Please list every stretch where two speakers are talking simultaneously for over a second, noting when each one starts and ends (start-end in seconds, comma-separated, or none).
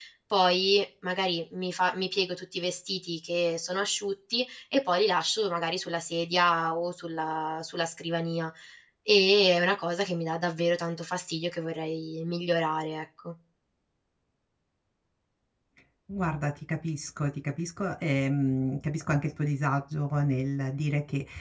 none